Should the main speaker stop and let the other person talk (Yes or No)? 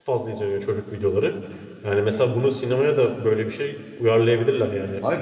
Yes